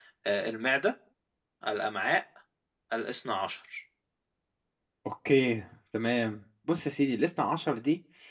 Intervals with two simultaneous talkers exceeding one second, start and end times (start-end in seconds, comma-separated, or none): none